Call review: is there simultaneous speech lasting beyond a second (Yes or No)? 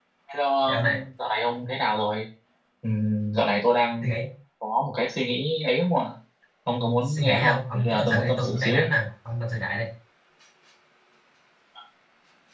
Yes